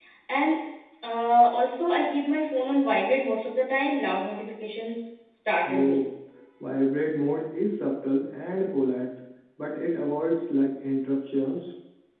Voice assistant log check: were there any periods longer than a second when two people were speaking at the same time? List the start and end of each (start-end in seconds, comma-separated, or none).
none